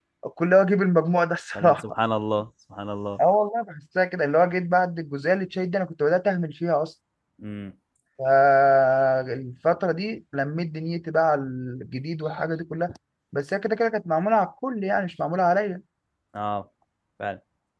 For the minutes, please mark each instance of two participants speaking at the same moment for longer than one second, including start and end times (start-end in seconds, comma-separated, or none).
none